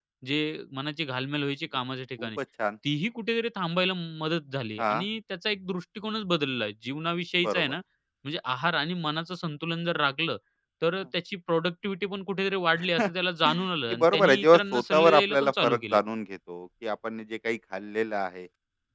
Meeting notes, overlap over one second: present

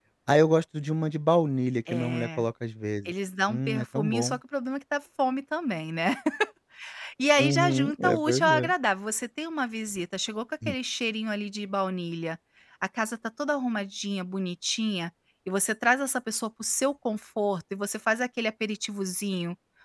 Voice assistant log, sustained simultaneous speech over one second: present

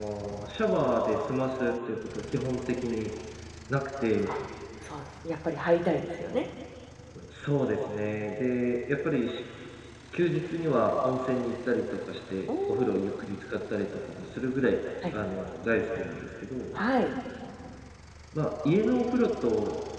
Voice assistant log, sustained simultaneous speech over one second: none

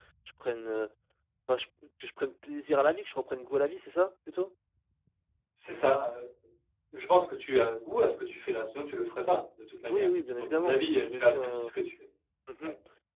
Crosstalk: present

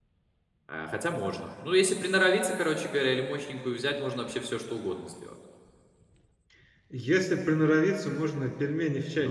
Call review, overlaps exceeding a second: none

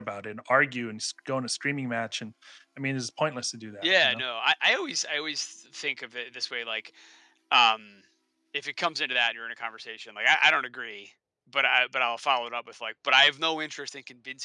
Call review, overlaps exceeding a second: none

